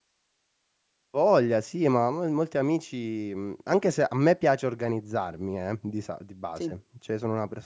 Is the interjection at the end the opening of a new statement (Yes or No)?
No